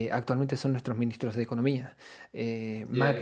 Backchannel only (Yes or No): Yes